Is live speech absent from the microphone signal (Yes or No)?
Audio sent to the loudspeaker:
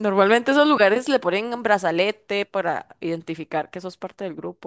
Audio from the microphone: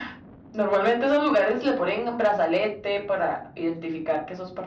Yes